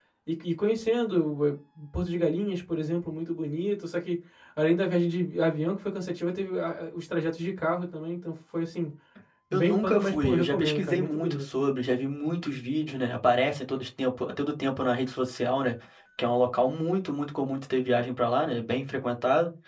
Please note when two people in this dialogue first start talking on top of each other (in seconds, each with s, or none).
9.5 s